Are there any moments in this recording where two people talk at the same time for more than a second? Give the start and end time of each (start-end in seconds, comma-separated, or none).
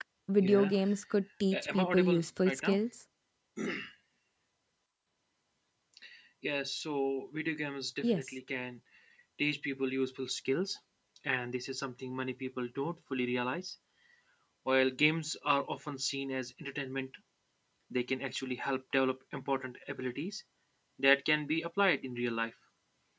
1.5-2.8